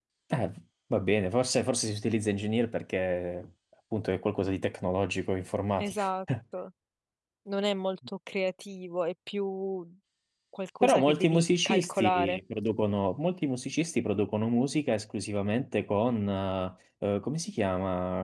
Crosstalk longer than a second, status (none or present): present